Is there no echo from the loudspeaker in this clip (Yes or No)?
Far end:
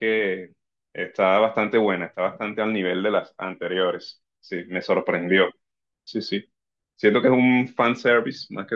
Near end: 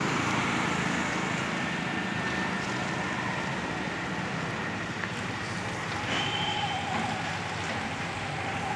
Yes